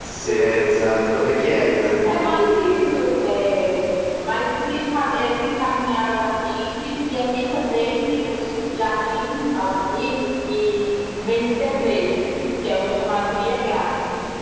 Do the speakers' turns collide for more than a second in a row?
No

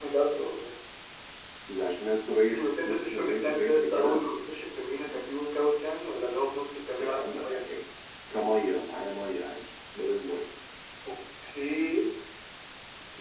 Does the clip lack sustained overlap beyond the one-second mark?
No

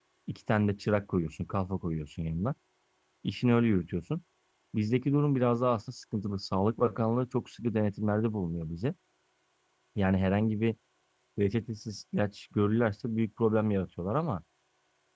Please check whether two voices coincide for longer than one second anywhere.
No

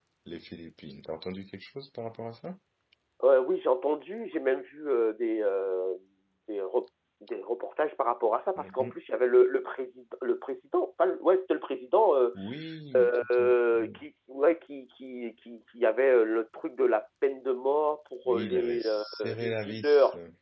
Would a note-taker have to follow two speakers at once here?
Yes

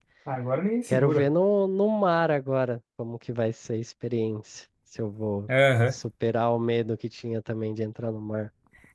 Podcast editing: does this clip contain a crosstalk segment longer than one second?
No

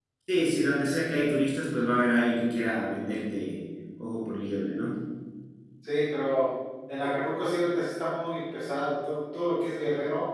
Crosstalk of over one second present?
No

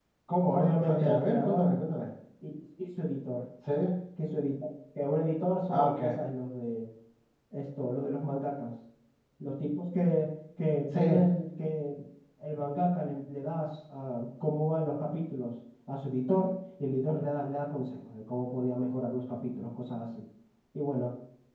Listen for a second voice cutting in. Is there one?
Yes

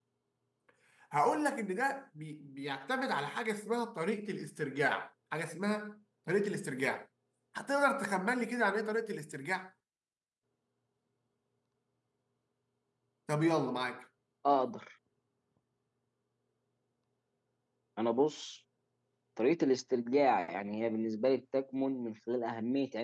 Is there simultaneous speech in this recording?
No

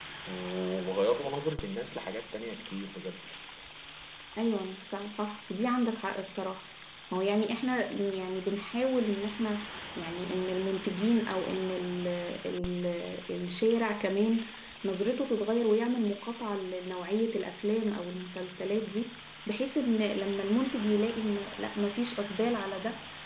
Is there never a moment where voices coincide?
Yes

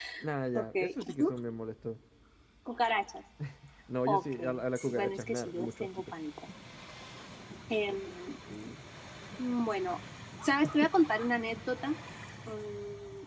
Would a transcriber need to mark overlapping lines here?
Yes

